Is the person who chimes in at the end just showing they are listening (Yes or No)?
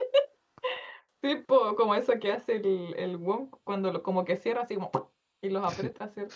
No